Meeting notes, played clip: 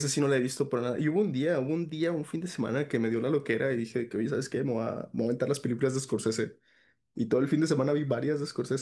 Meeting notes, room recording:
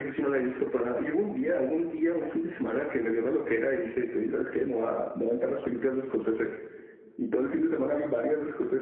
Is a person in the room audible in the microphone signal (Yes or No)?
No